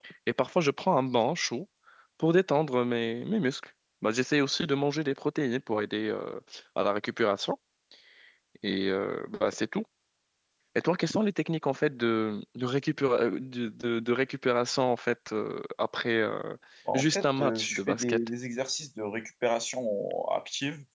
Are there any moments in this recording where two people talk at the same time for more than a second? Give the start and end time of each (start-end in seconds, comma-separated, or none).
16.9-18.2